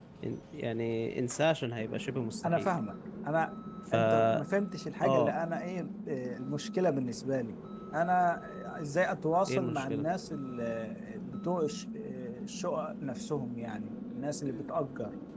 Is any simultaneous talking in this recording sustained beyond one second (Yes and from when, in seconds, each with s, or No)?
No